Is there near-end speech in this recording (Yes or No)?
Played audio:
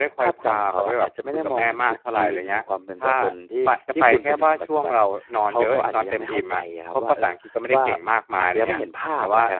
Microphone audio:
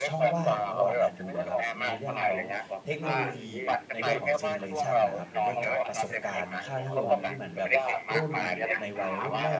Yes